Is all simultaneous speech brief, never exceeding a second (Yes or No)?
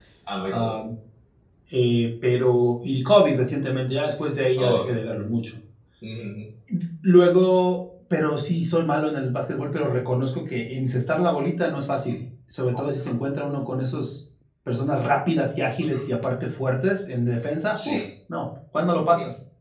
Yes